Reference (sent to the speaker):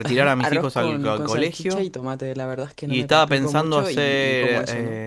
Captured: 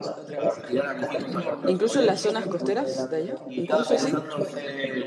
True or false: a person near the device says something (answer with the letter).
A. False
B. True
B